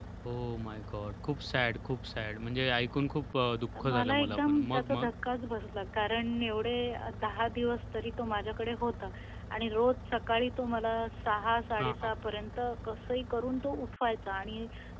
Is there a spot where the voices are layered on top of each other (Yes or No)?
Yes